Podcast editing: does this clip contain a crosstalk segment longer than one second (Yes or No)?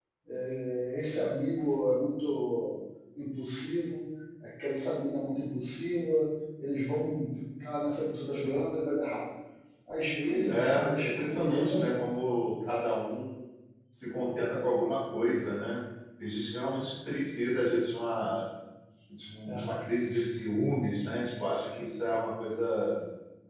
Yes